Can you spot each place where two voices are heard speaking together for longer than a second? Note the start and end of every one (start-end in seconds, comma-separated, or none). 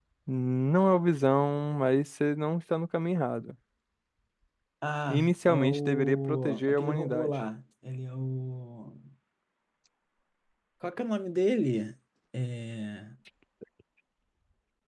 5.1-7.4